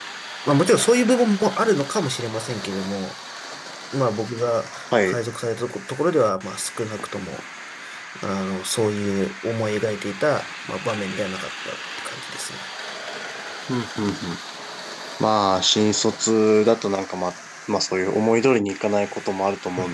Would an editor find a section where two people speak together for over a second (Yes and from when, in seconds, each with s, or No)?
No